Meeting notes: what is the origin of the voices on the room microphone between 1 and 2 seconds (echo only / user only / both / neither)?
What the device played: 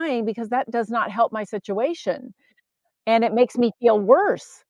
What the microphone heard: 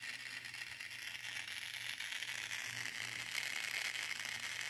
neither